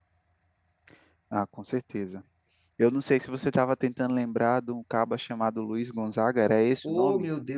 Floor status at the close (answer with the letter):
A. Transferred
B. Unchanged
A